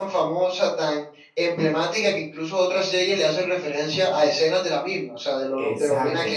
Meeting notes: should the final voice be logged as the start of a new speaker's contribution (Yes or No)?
Yes